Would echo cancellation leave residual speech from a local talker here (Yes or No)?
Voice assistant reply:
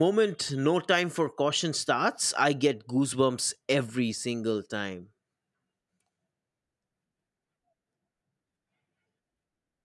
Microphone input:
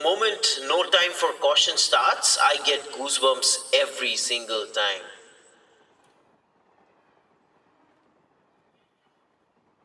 No